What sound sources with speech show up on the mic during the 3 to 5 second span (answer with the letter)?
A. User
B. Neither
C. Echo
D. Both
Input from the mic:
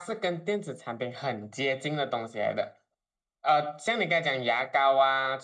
C